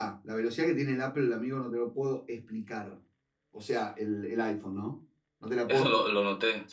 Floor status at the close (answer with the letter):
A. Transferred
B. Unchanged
A